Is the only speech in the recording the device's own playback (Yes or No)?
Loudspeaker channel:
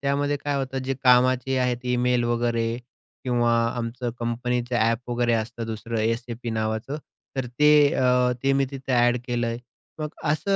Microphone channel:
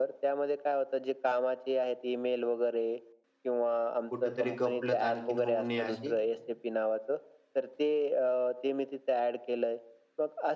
No